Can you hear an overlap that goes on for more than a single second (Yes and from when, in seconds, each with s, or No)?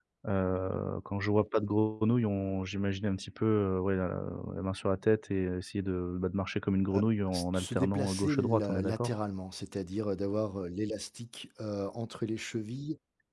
Yes, from 7.3 s